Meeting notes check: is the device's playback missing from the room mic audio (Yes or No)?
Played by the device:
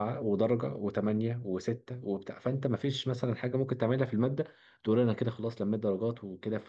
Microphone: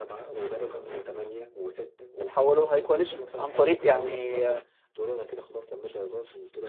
No